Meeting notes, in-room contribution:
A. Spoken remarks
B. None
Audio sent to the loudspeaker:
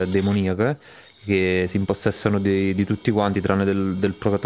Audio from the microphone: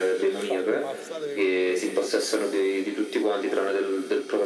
A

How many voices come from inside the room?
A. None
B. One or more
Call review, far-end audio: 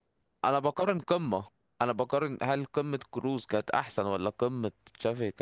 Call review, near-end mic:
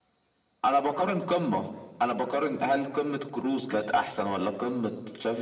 A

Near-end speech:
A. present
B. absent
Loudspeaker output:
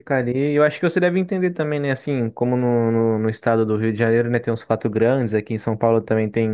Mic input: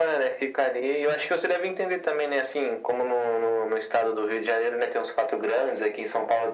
B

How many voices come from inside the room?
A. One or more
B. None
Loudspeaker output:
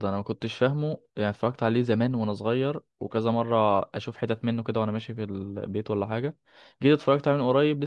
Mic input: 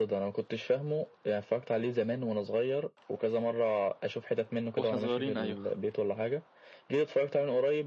A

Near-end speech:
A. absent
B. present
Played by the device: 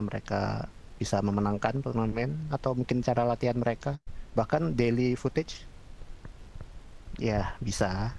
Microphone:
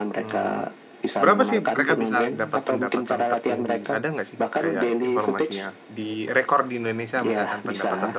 B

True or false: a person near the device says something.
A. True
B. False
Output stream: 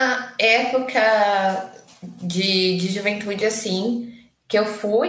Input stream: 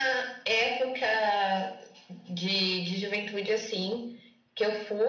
B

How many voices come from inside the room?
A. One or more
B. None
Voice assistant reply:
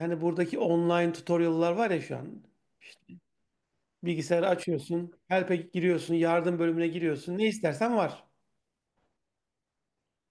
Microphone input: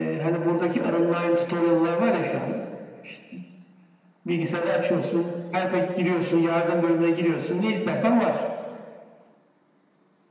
B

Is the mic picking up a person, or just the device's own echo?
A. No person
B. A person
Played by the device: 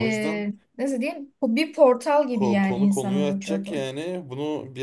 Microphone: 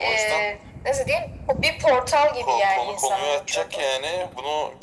A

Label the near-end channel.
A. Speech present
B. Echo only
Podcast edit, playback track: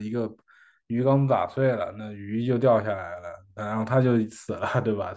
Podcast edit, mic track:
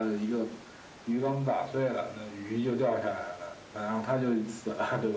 B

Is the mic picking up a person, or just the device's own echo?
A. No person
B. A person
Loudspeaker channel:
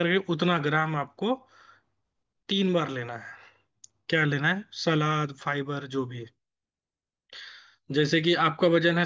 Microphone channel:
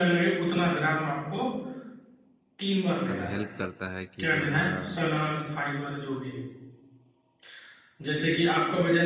B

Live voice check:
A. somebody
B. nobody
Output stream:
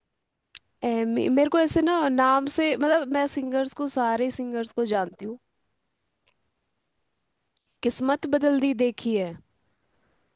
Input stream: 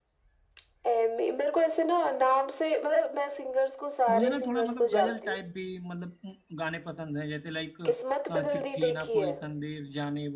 A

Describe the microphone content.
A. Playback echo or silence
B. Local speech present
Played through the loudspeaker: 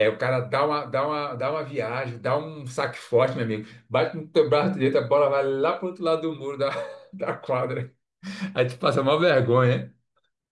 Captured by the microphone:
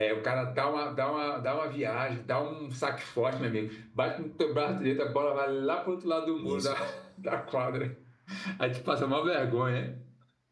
B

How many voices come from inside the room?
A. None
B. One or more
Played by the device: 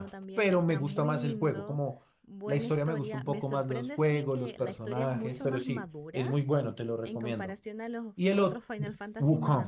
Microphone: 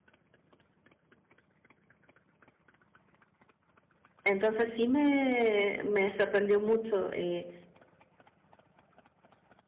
B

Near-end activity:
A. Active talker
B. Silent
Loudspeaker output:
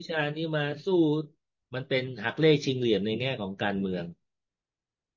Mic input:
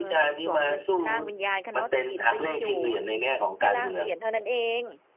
A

